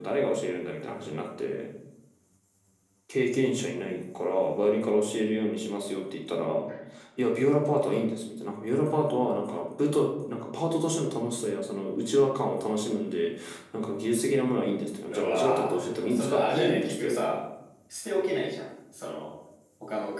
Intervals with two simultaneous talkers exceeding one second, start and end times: 15.1-17.4

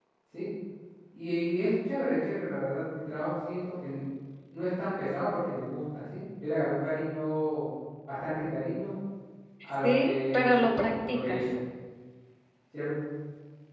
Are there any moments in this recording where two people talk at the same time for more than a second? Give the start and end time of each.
9.8-11.4

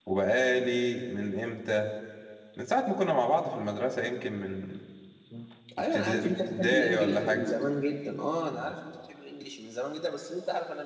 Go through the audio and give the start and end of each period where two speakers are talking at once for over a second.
5.9-7.4

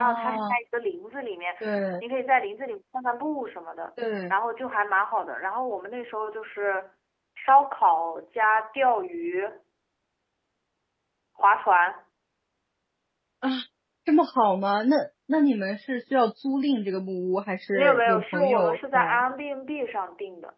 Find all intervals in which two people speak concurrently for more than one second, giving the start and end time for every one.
17.7-19.2

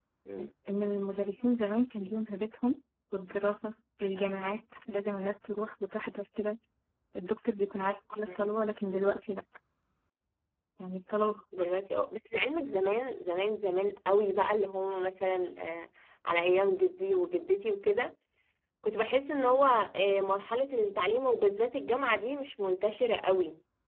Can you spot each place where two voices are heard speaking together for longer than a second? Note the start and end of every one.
none

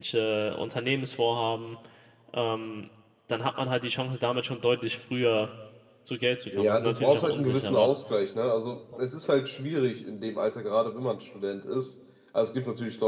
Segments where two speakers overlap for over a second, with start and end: 6.6-7.9

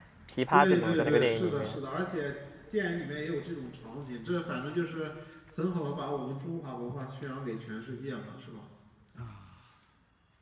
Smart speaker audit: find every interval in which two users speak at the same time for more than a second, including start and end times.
0.5-1.8

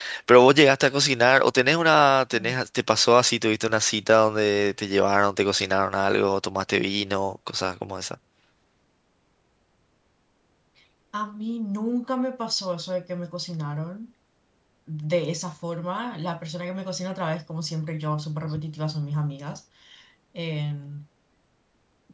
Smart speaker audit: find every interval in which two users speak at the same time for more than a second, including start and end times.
none

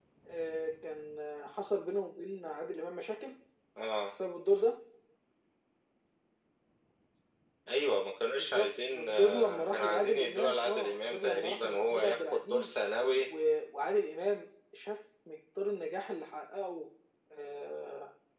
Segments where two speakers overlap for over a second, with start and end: 8.3-12.7

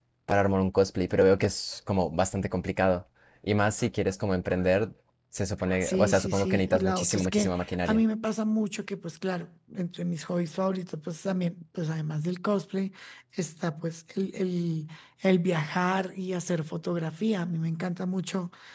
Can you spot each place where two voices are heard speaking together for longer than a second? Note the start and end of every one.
5.8-8.0

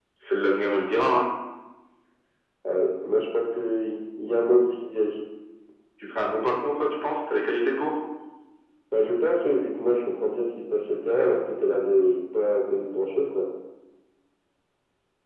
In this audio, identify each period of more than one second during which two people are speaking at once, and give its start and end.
none

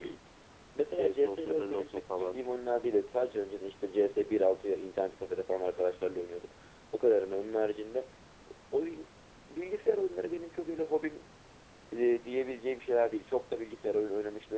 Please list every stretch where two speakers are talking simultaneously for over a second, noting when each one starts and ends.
0.9-2.4

